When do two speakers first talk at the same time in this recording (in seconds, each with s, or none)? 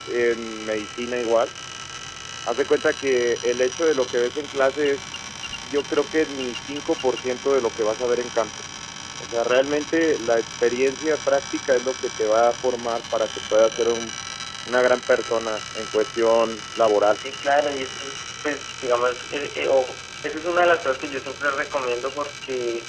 none